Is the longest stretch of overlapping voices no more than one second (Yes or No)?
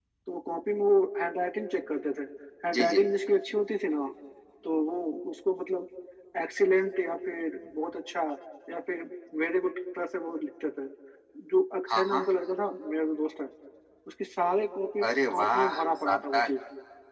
No